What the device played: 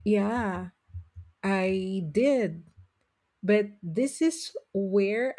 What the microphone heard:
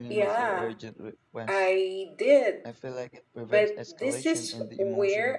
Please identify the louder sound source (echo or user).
echo